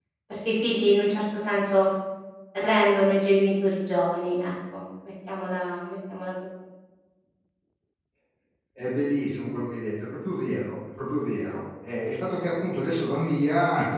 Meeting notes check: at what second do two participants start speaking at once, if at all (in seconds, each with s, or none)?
none